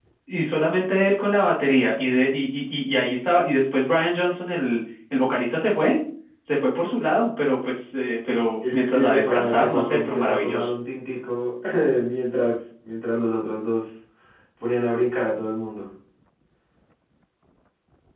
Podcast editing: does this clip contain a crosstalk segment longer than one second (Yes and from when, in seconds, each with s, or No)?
Yes, from 8.6 s